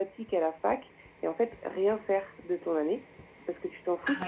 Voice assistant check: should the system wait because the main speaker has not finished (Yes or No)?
Yes